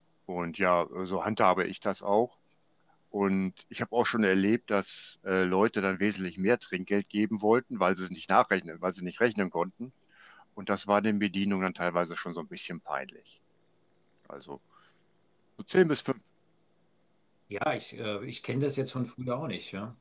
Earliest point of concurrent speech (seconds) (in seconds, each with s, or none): none